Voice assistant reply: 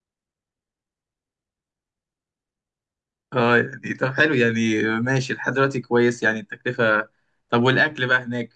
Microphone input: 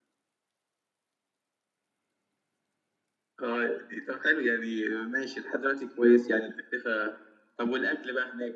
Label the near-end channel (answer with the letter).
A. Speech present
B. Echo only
B